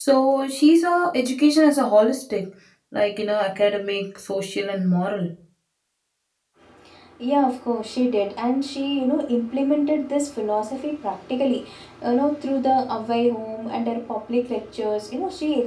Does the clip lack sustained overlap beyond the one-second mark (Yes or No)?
Yes